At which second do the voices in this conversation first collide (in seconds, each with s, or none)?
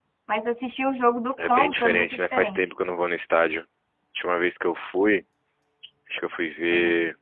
1.4 s